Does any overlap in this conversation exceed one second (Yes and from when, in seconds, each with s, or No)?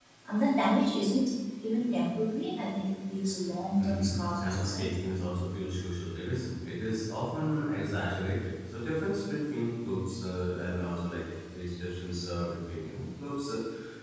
Yes, from 3.8 s